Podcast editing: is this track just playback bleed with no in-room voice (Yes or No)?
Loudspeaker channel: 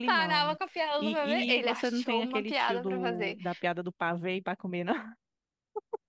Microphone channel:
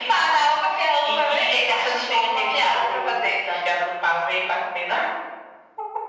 Yes